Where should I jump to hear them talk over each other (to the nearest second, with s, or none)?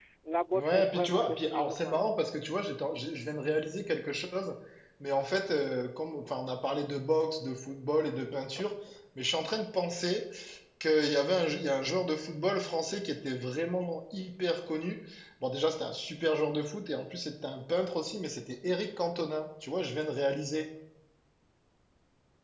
1 s